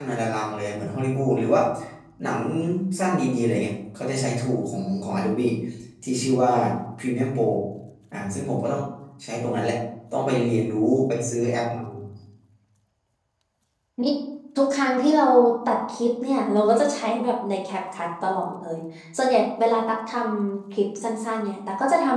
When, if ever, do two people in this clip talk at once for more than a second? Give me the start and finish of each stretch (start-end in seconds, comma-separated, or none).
none